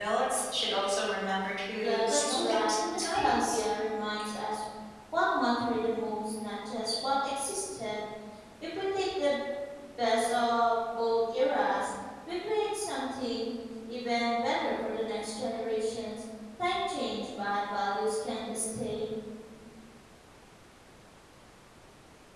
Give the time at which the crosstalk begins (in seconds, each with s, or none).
1.8 s